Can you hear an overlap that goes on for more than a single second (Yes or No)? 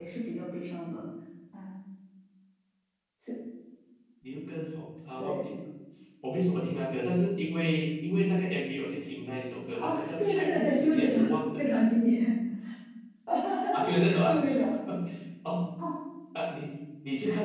Yes